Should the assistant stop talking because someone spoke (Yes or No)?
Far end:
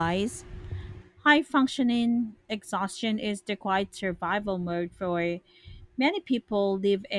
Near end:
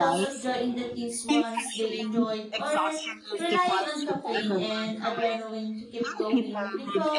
Yes